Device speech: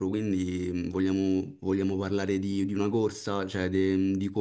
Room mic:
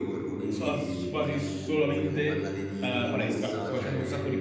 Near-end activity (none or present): present